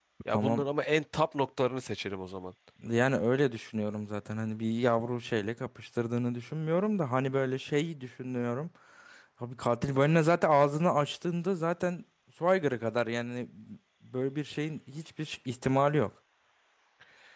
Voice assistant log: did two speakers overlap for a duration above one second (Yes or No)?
No